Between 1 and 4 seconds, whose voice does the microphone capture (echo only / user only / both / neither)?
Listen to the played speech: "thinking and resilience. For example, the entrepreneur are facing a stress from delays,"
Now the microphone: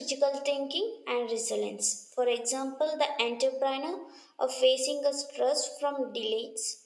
echo only